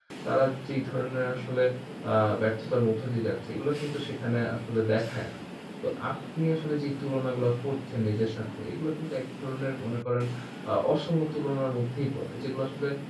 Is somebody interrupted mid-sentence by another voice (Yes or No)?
No